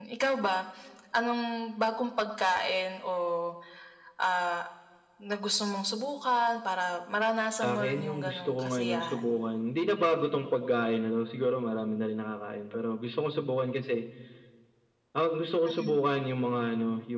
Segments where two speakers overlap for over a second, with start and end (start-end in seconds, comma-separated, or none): 7.6-9.4